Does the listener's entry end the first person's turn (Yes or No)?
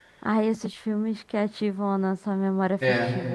Yes